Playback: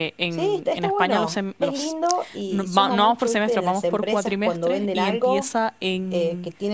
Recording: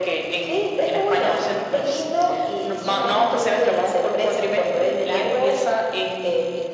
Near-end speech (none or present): none